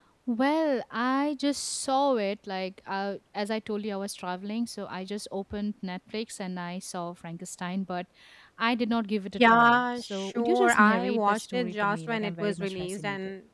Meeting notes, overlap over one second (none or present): present